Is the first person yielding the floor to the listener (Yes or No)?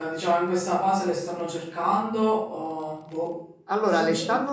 Yes